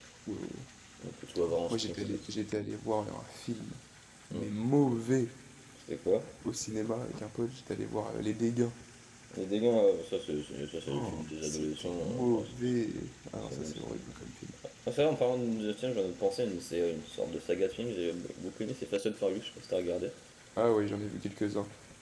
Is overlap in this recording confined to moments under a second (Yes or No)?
No